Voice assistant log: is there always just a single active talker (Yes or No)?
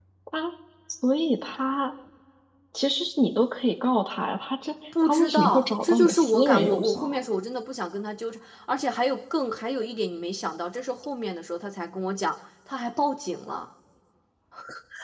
No